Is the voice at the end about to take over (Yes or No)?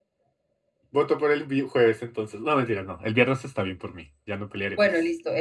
Yes